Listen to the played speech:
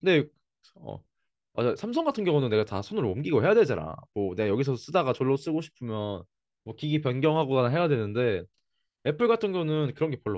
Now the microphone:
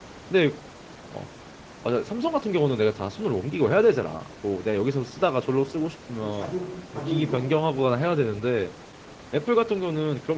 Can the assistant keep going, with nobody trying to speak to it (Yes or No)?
No